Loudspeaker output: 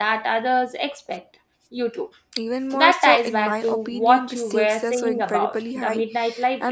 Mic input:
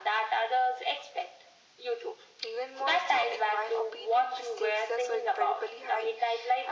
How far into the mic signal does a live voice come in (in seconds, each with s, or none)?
none